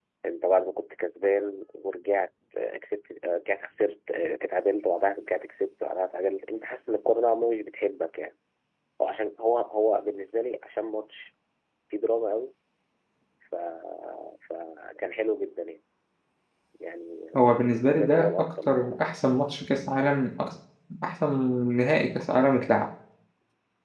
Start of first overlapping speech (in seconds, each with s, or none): 17.4 s